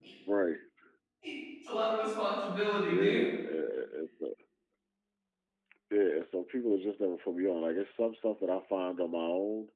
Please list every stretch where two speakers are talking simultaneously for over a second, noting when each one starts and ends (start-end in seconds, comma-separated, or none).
none